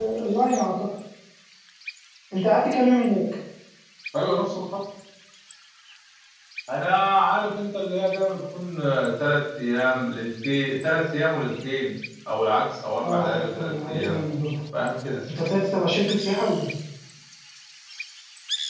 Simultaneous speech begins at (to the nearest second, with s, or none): 13 s